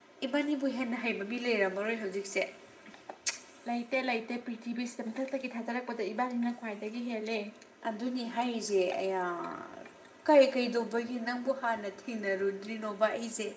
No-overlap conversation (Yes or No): Yes